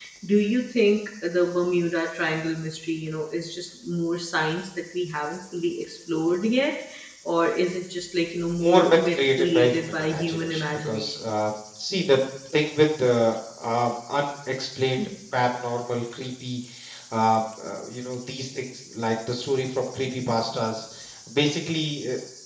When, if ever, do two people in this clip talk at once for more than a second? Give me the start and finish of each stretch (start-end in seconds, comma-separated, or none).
8.6-11.3